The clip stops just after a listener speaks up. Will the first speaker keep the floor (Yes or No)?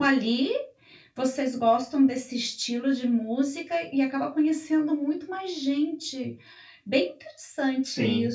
Yes